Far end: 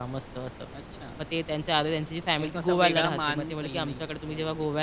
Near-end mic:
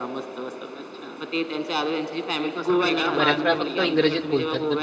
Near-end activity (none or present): present